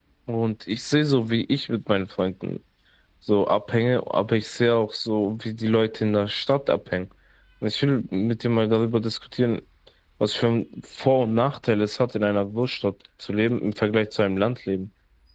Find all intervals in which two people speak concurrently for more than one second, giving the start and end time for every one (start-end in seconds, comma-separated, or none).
none